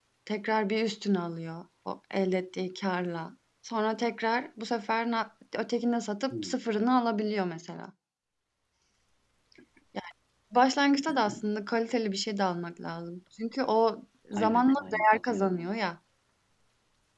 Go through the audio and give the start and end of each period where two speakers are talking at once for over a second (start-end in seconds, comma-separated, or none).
14.3-15.7